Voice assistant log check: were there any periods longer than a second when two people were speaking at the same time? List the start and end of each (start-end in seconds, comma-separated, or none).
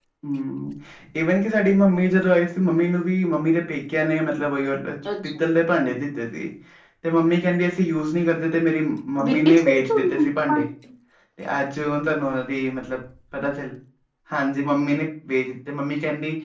9.2-10.6